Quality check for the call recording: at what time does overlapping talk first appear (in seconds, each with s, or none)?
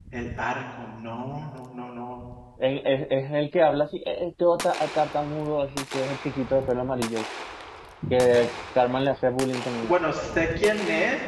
none